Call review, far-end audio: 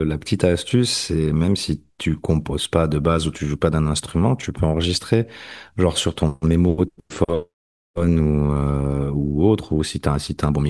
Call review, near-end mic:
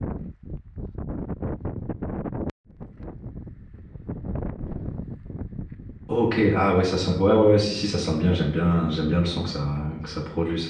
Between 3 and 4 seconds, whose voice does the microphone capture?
neither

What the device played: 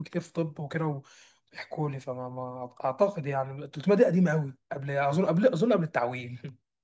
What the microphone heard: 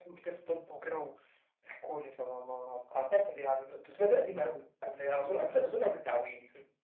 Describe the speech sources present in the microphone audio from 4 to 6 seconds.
echo only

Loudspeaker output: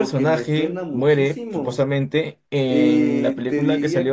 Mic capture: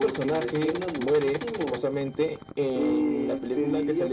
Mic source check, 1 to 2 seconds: echo only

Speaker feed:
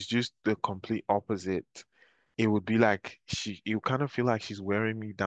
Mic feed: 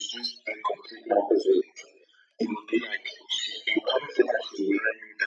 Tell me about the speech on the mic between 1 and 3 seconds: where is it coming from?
echo only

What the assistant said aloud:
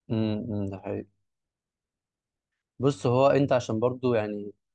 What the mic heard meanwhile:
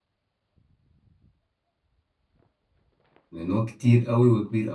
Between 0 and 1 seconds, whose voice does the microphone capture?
neither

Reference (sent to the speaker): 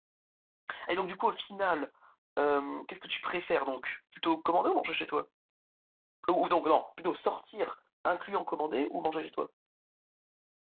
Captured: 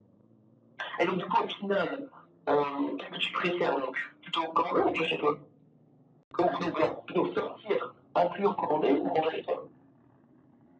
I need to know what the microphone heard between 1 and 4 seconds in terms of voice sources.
echo only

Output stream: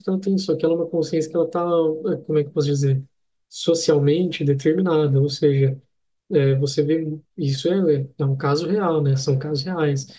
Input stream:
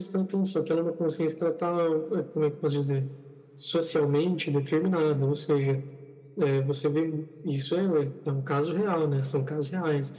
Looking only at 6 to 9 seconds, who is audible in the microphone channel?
echo only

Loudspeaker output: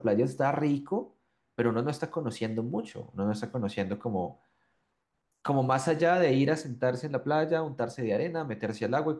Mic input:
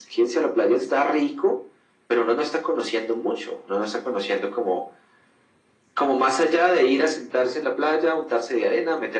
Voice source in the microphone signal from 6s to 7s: echo only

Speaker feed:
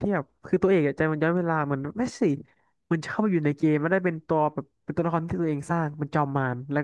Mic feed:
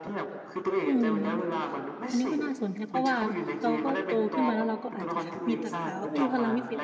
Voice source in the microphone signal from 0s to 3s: both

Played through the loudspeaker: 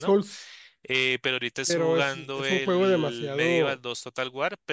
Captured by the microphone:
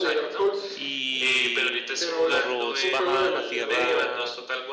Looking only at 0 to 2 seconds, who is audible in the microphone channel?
both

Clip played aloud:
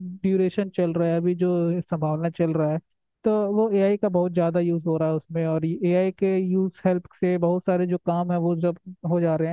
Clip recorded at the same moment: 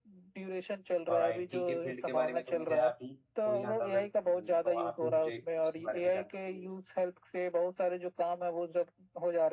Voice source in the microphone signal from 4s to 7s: both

